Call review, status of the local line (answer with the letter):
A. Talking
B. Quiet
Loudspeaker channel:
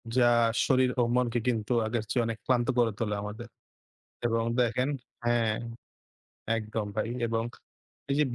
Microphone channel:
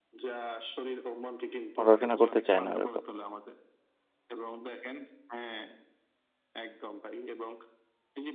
A